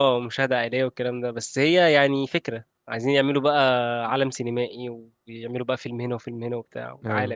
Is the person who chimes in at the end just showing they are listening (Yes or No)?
No